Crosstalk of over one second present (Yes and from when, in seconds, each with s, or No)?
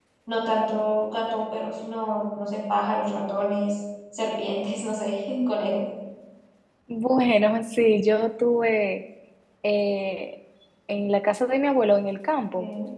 No